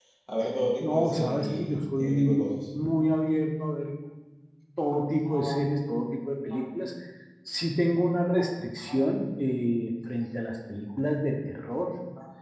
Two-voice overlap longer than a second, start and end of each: 0.8-2.5

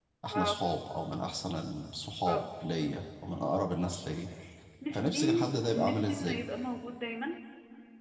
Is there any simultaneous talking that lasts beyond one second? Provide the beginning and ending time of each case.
4.9-6.4

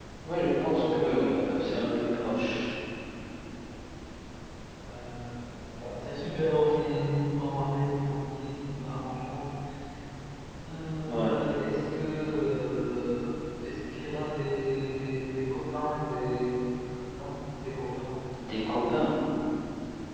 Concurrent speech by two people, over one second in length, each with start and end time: 0.6-2.3

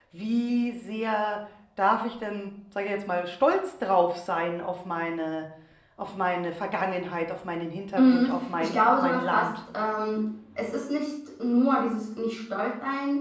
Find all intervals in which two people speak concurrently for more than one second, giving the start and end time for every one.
8.0-9.5

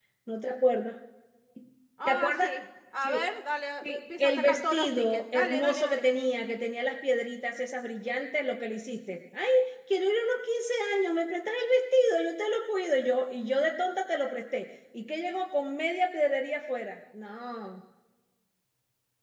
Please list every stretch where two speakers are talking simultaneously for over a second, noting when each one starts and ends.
3.8-6.0

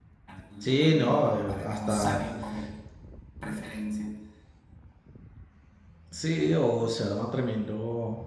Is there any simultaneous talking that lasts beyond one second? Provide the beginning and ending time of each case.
0.8-2.2

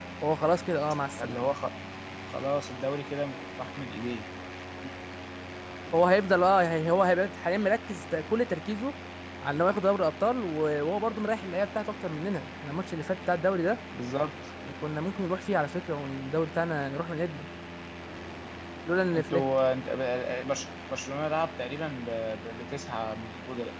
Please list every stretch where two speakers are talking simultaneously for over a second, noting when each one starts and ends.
none

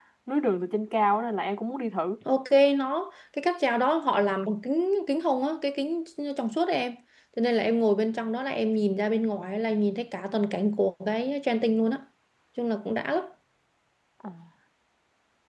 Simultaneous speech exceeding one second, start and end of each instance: none

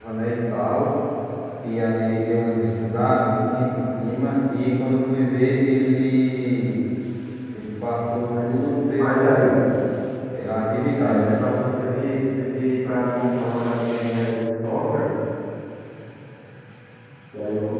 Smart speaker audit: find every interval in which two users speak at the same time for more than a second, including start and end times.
8.3-9.6

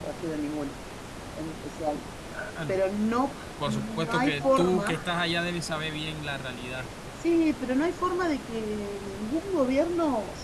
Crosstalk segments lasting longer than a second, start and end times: 3.7-5.0

